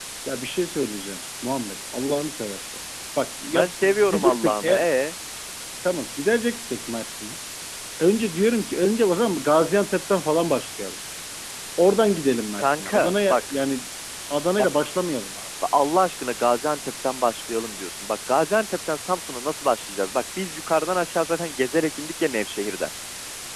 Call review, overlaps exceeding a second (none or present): present